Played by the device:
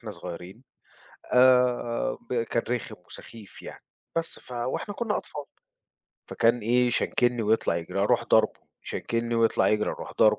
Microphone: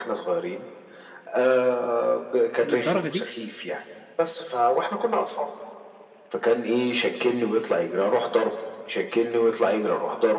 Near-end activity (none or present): present